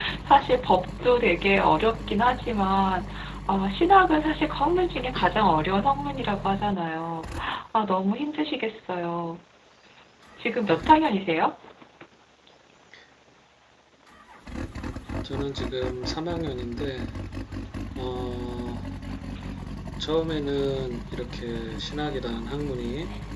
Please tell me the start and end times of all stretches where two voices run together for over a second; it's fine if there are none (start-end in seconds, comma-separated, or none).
none